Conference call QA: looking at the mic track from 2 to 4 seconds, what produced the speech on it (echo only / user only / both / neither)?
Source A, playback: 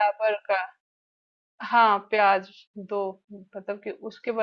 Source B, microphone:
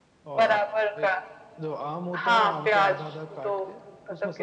both